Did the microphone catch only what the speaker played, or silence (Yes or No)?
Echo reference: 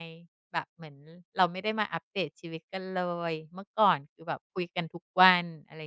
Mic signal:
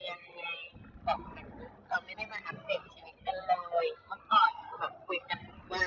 Yes